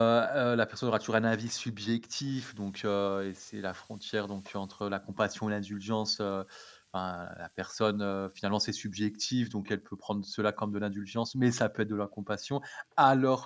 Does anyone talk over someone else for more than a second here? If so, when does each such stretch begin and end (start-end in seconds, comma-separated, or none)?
none